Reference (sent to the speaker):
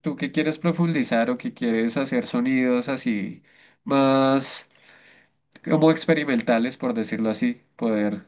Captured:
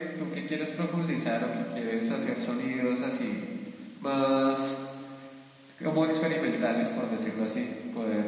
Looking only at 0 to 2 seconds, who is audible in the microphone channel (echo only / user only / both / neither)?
echo only